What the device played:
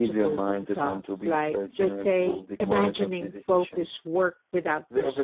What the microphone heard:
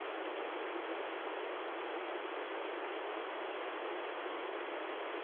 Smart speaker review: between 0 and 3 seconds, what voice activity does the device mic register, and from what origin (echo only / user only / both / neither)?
neither